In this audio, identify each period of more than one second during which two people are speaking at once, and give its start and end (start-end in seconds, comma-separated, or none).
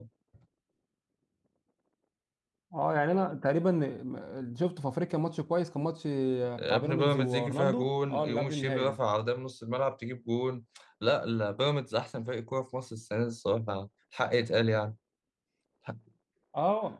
6.7-9.0